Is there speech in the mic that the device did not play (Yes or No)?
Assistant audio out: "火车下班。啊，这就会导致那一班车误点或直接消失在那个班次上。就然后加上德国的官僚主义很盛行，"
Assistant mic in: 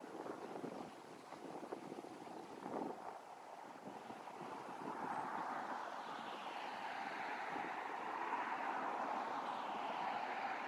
No